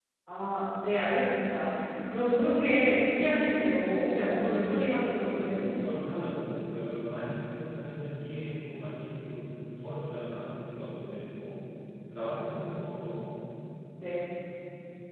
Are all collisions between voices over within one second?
No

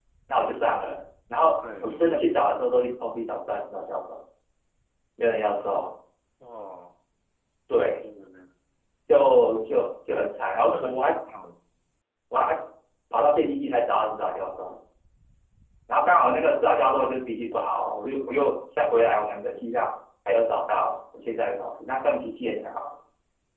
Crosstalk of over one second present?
No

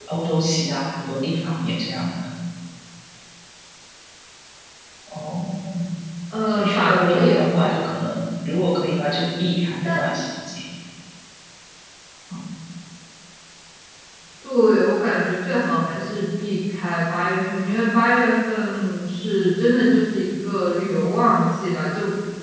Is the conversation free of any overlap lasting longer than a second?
No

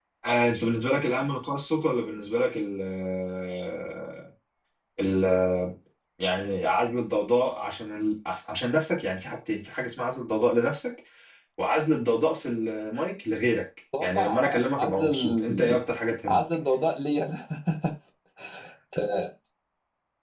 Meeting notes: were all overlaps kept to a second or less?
No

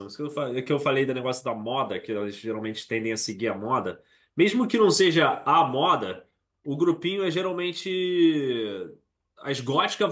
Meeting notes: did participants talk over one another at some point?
No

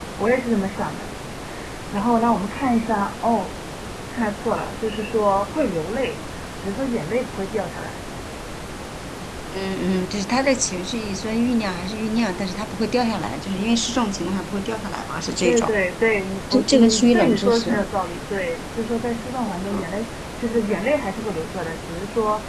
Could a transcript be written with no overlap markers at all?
No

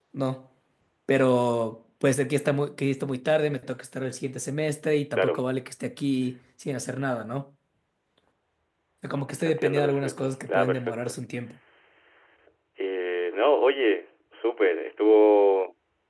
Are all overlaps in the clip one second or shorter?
No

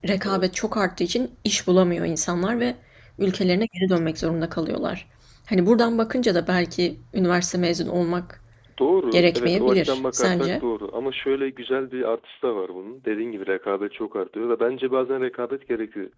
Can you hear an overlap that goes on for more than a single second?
Yes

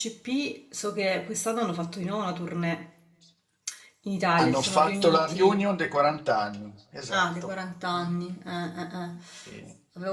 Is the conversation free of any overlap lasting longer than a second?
No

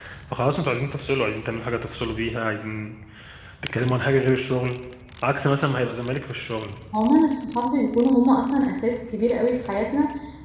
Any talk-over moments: No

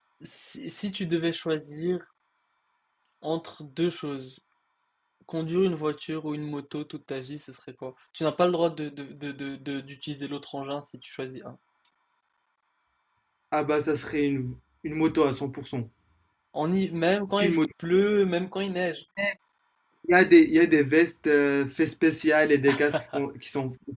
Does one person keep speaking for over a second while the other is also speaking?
No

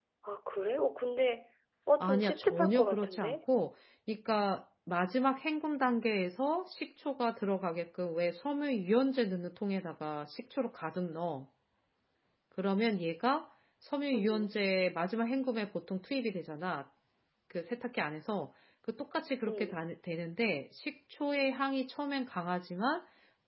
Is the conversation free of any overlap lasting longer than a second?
No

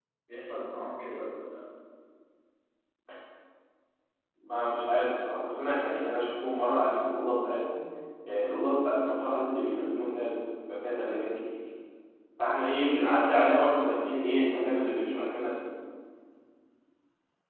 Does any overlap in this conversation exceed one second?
No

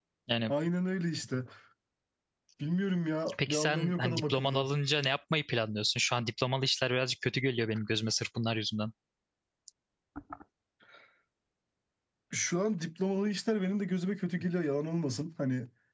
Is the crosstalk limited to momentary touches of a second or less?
No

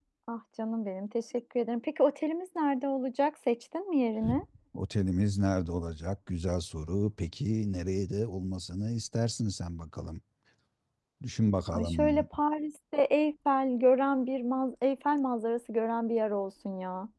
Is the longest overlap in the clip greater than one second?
No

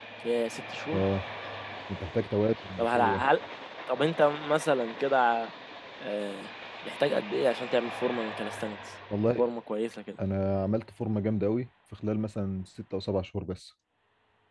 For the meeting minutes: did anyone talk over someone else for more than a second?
No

